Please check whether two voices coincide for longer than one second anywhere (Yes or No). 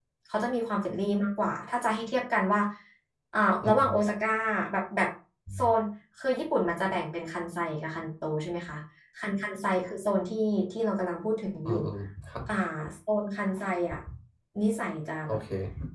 No